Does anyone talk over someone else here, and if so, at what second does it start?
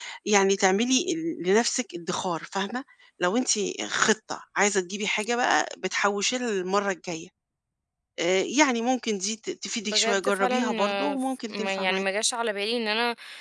9.8 s

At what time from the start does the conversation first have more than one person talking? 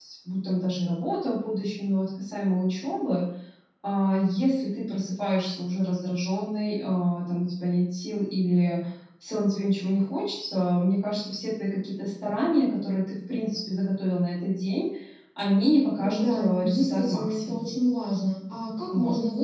15.9 s

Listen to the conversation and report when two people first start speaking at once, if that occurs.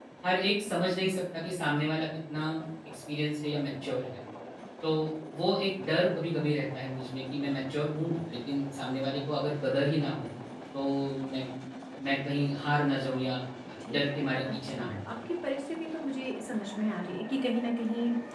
13.9 s

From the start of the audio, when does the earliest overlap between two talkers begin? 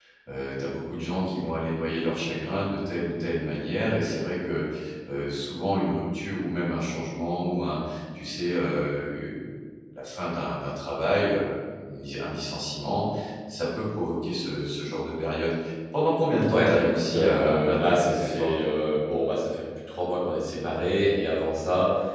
16.5 s

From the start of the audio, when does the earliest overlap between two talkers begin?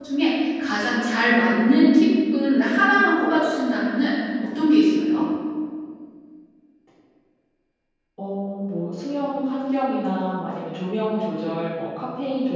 none

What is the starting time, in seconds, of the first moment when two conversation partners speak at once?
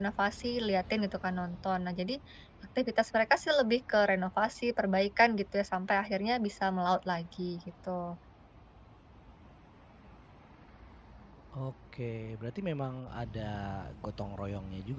none

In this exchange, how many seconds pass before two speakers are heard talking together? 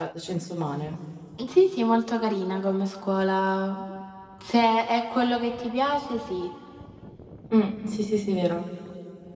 none

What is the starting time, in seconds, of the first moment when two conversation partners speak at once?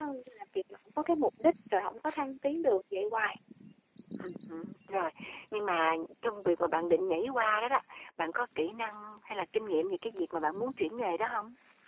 none

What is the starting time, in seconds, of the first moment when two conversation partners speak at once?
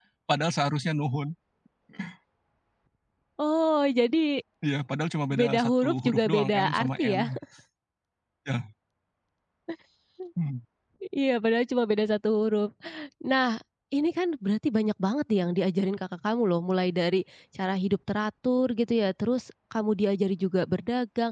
5.4 s

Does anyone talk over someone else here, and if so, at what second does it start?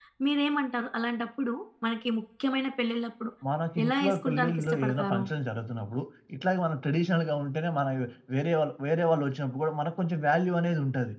3.8 s

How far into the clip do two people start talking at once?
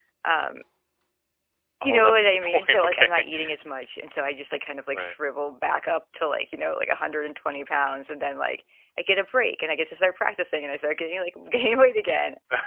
1.8 s

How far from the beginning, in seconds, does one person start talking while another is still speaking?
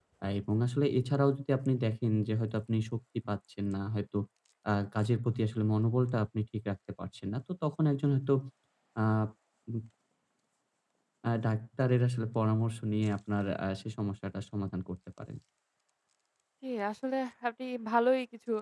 none

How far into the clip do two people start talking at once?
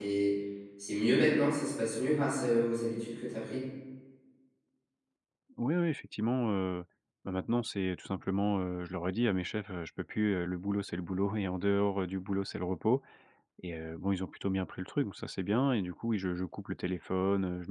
none

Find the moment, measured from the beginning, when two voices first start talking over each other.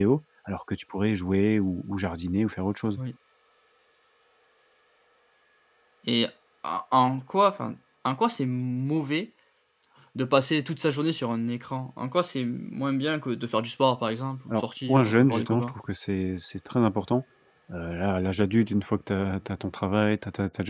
14.5 s

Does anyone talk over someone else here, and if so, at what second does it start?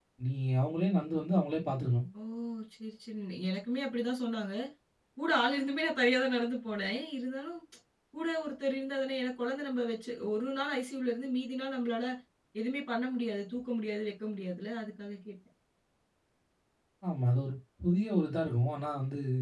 none

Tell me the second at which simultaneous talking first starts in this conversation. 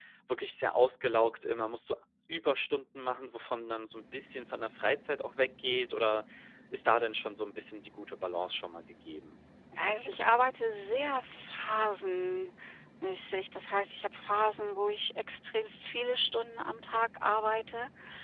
none

